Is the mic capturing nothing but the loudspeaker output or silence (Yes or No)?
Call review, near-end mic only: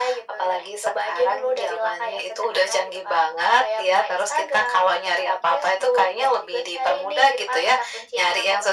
Yes